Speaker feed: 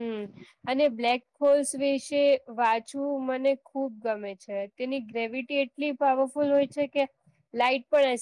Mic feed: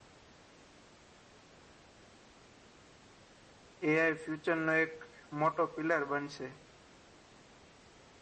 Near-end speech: present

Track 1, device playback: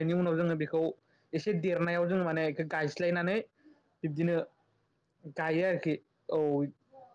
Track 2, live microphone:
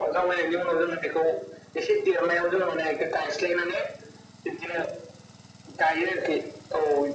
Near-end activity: none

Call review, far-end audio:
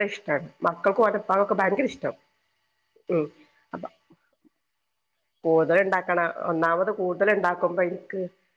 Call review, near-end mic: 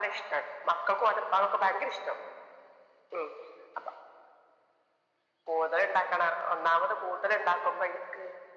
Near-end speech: none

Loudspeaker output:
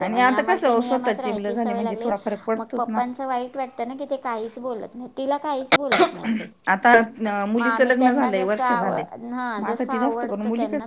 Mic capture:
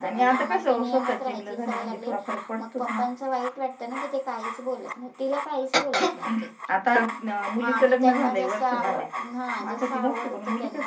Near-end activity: none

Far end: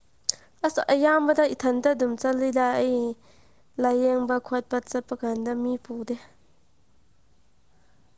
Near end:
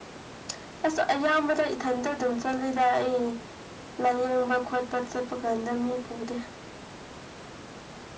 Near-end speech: none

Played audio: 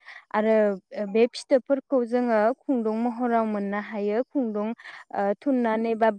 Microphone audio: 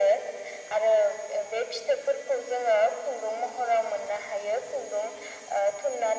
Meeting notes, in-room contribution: none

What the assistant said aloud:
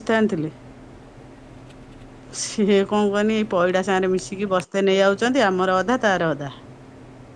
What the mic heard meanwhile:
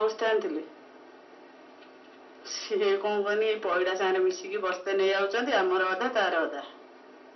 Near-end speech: none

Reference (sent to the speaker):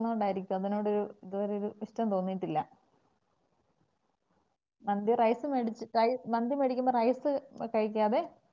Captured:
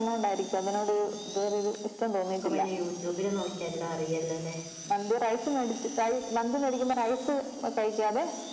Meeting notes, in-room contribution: present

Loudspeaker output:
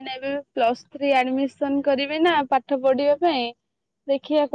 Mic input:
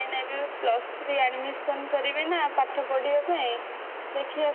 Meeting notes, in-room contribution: none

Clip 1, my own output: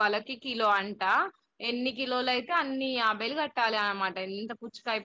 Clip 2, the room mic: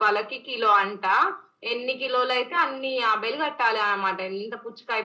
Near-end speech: none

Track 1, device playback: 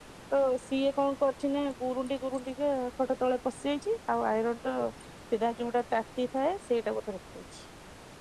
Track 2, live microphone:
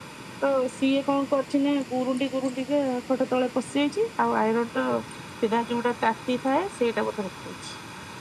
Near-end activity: none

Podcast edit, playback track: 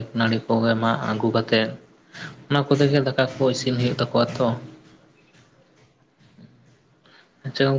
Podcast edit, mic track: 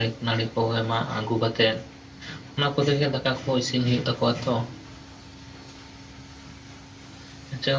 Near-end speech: none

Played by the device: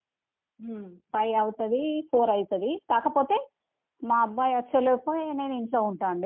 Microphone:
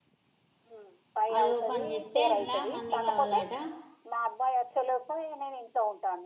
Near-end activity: present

